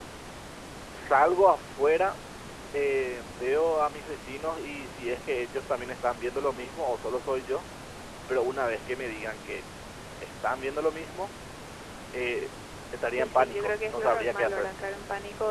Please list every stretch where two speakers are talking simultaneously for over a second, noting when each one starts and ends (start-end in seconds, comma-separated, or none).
13.2-14.7